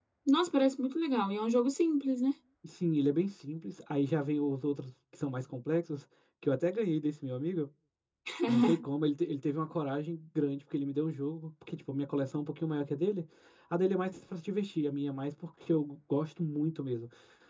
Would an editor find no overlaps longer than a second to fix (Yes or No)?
Yes